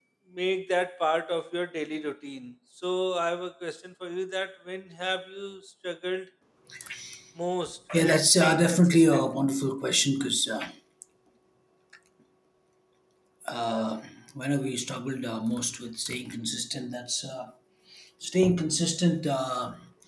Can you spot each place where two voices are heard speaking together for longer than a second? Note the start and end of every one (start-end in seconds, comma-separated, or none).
8.0-9.3